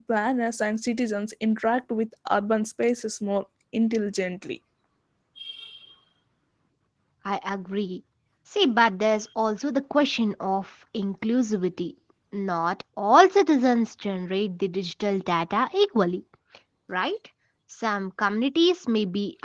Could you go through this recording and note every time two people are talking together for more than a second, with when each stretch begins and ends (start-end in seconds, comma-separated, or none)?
none